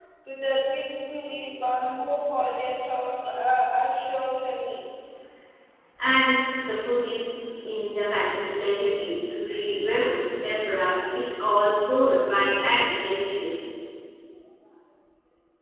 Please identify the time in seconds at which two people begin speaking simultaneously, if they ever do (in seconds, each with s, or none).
none